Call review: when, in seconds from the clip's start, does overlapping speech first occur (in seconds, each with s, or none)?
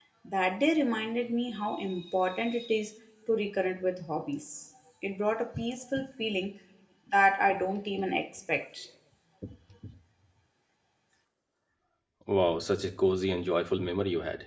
none